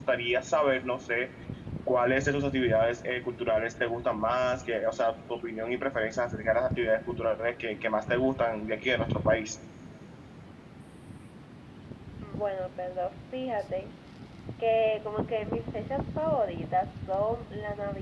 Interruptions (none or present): none